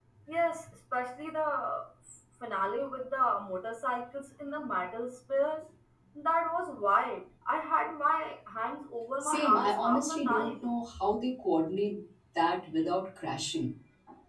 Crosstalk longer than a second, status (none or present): present